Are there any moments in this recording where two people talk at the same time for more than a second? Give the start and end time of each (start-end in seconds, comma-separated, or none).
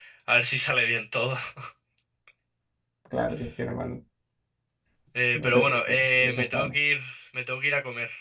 5.3-6.7